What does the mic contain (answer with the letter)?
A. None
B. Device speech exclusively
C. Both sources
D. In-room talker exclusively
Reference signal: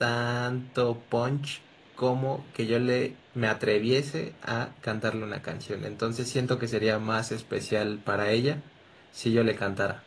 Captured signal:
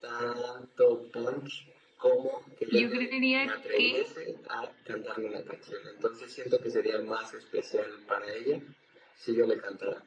C